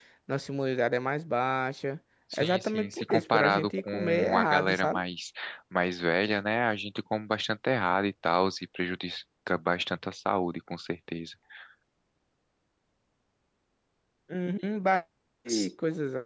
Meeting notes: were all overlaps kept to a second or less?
No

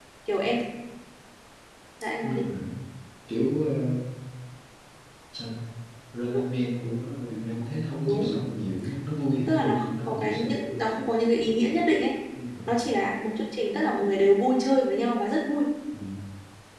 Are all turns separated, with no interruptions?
No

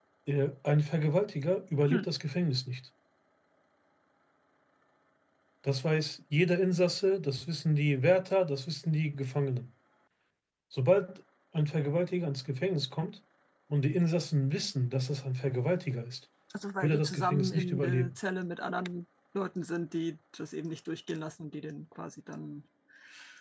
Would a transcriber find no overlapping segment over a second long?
No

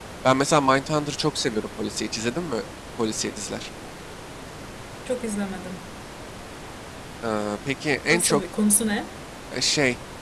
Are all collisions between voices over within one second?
Yes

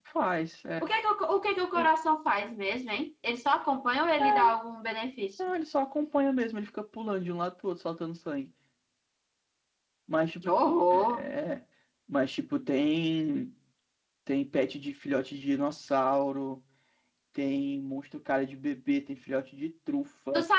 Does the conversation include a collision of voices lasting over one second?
No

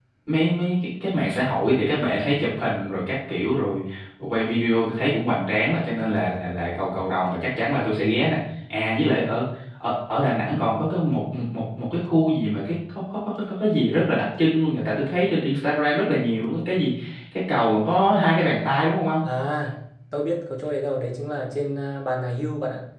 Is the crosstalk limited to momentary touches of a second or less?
Yes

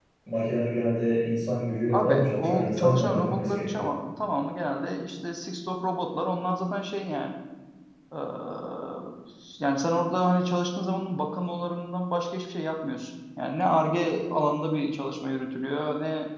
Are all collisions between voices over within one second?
No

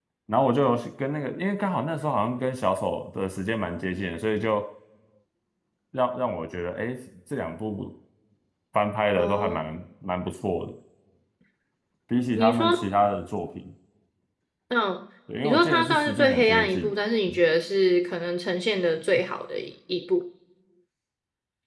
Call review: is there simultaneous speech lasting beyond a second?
Yes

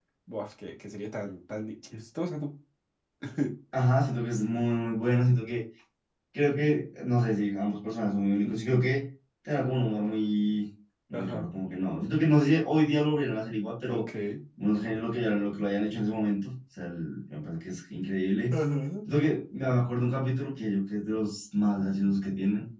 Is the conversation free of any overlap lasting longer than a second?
Yes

